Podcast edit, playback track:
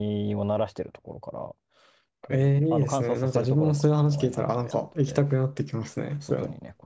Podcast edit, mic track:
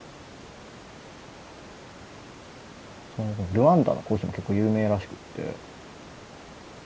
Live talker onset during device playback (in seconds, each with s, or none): 3.1 s